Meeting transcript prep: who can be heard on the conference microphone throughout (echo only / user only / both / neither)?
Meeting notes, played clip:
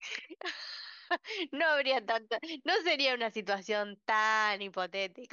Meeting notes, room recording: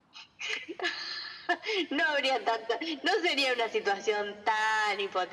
echo only